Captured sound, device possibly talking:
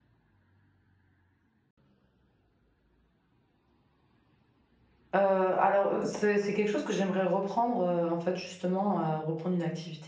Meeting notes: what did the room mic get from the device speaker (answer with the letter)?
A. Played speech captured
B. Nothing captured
B